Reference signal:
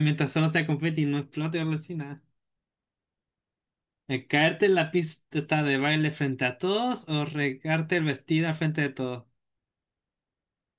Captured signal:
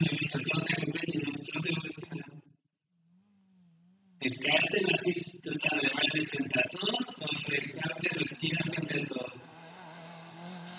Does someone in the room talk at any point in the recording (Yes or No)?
No